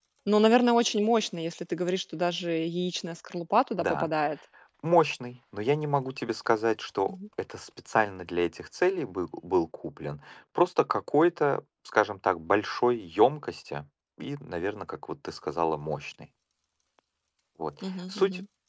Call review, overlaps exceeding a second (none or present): none